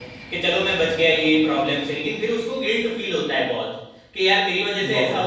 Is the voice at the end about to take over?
No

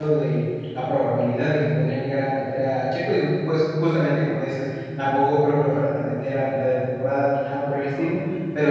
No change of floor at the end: Yes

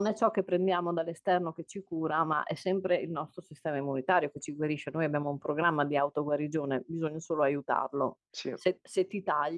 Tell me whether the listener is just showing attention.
Yes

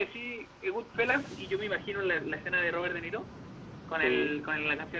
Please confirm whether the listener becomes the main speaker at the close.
No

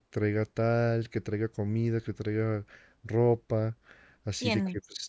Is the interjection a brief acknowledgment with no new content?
Yes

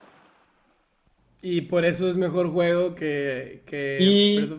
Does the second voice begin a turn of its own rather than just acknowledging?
Yes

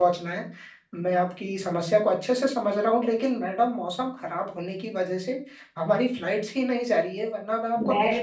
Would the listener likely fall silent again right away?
No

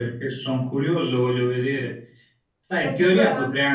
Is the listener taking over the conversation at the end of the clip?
No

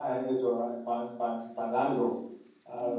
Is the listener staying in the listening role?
No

